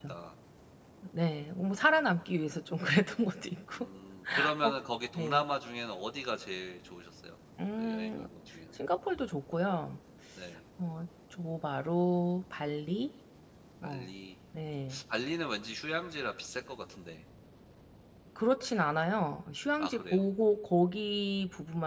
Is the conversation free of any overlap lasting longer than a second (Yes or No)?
Yes